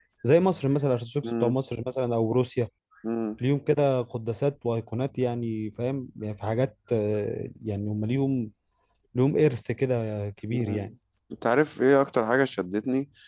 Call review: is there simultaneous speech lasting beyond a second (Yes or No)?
No